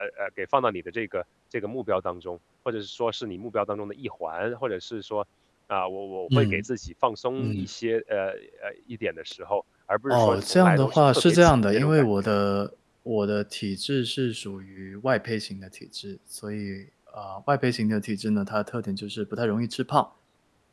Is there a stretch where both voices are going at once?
Yes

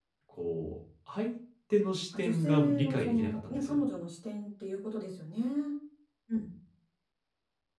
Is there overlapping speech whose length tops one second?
Yes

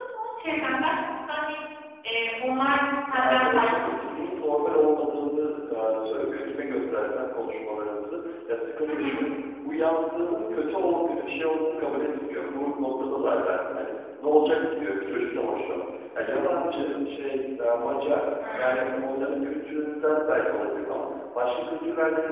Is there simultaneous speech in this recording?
Yes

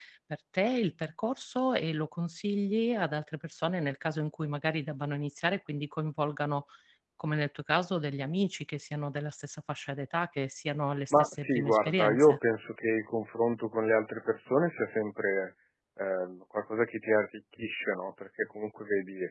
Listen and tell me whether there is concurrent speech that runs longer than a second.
Yes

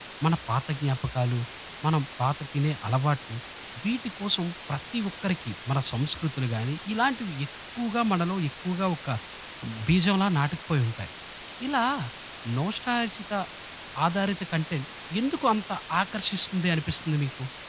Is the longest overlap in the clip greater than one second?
No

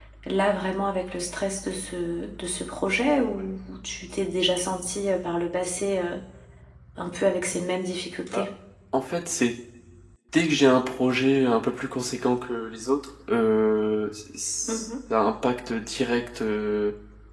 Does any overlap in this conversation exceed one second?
No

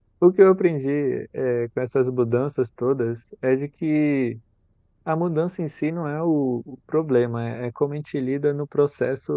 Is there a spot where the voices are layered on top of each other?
No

